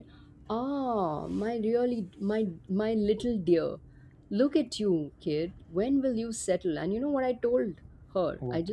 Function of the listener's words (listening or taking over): listening